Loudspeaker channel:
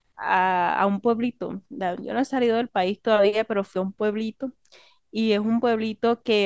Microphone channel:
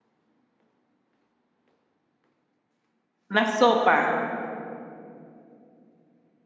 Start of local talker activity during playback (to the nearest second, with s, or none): 3 s